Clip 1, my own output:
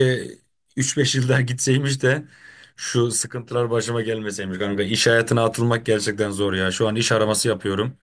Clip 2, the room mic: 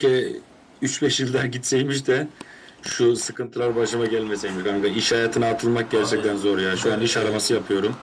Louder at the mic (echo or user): echo